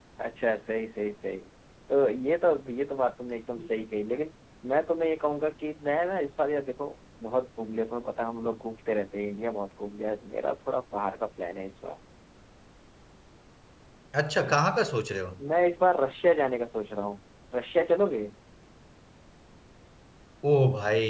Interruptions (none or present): none